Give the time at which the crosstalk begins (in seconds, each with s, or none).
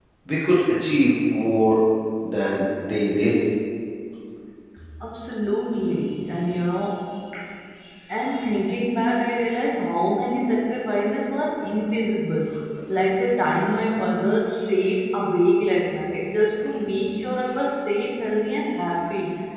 none